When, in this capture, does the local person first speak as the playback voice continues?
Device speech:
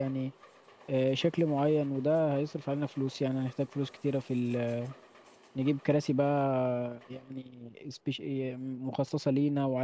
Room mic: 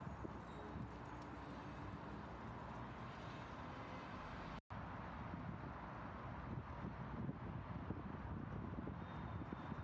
none

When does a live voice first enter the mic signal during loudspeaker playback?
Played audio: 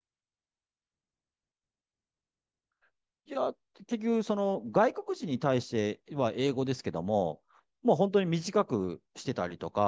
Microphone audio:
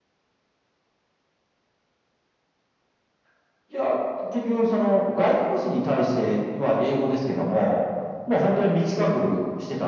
none

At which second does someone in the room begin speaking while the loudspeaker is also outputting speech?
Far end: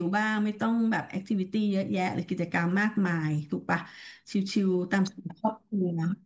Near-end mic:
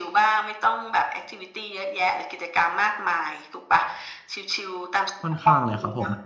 5 s

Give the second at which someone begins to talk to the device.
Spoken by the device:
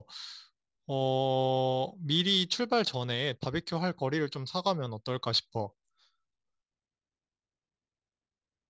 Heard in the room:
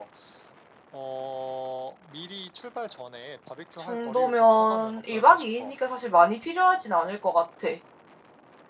4 s

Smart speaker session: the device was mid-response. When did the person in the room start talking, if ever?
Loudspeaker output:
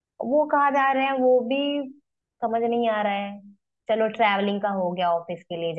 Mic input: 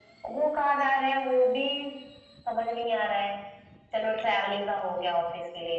none

